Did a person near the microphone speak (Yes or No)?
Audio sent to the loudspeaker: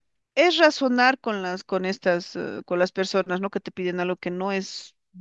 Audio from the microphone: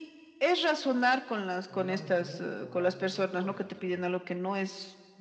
Yes